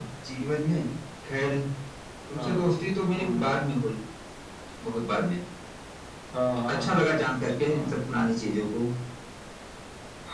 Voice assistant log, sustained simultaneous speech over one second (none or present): none